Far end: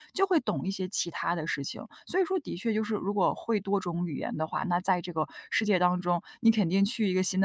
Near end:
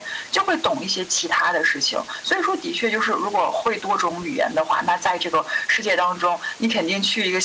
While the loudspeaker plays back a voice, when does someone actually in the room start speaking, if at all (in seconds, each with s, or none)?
none